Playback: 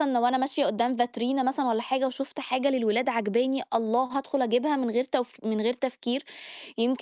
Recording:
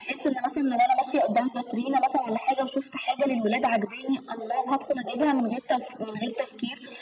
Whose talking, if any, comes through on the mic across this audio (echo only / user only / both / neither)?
echo only